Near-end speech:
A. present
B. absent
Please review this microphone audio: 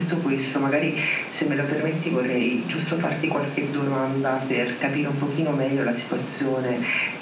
B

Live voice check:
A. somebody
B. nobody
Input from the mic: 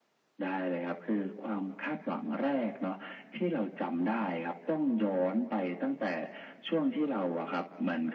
B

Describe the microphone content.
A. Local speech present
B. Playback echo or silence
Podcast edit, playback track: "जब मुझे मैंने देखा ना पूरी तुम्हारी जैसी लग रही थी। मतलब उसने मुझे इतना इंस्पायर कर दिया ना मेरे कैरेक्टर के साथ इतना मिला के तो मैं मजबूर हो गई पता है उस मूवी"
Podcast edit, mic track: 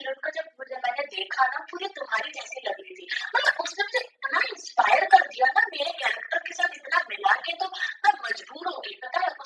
B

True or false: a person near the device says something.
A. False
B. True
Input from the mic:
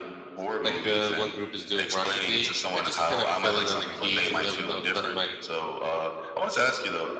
B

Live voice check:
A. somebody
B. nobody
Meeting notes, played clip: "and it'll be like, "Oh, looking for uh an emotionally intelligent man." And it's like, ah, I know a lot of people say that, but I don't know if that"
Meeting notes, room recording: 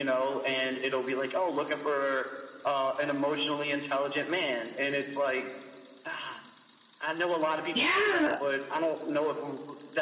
A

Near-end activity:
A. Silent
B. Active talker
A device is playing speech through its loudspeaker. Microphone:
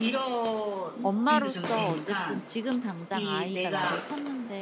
B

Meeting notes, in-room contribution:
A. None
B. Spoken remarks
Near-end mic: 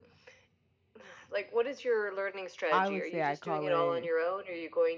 B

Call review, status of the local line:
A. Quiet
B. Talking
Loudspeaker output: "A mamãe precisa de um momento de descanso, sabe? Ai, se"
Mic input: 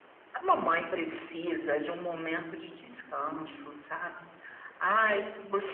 A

